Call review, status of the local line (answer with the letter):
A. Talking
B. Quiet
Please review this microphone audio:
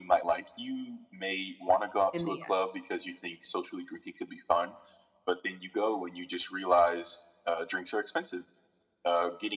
A